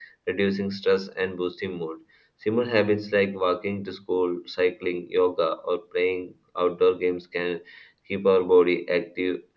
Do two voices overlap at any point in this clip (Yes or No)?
No